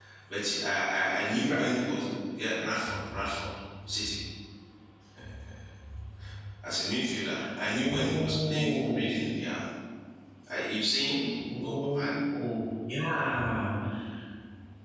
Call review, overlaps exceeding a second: present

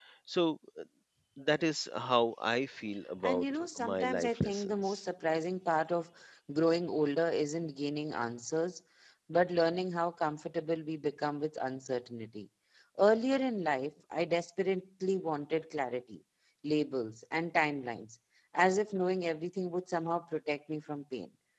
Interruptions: present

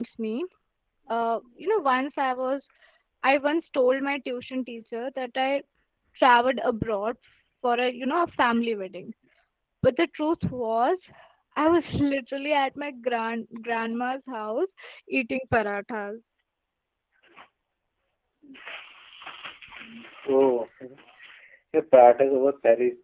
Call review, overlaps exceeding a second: none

